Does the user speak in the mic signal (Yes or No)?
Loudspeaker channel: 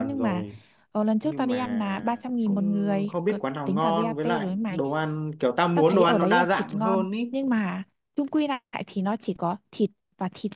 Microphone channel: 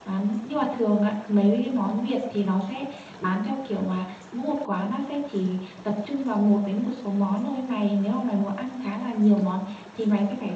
Yes